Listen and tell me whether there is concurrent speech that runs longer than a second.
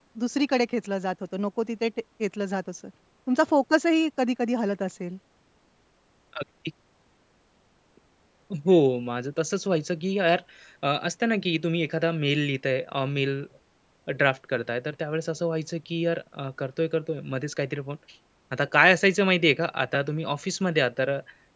No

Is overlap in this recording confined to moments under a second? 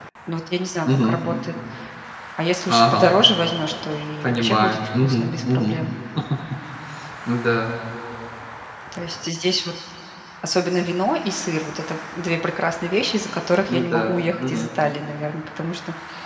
No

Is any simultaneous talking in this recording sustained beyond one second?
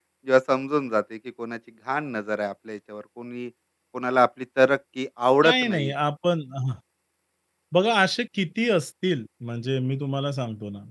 No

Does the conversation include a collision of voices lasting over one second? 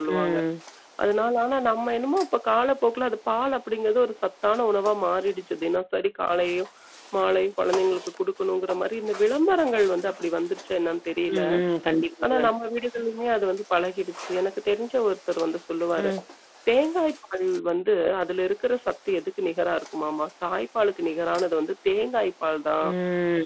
No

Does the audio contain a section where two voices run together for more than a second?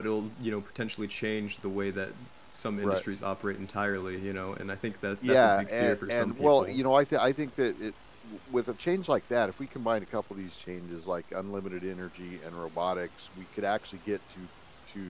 Yes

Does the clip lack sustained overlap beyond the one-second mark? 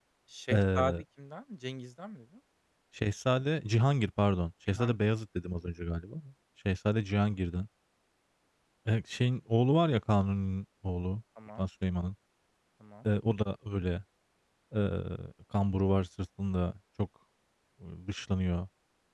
Yes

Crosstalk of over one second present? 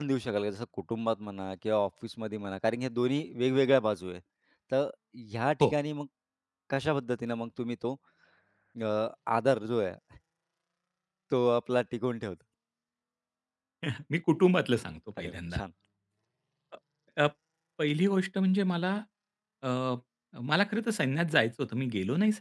No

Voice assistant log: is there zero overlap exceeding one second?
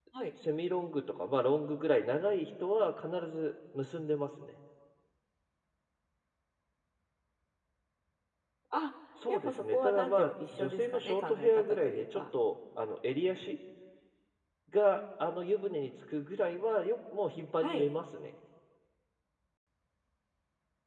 No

